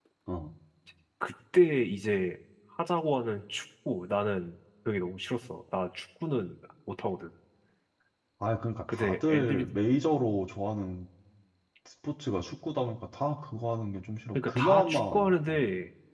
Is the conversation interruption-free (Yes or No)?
No